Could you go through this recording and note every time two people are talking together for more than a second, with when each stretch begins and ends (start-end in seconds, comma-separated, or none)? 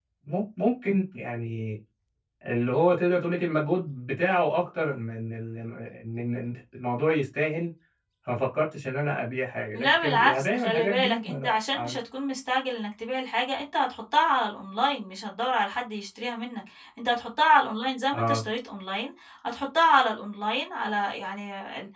9.8-12.0